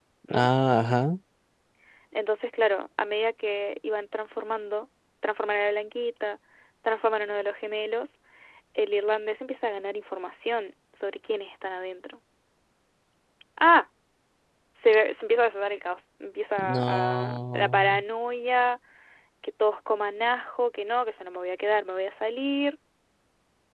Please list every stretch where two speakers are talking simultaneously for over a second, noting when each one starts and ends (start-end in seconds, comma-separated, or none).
16.7-18.0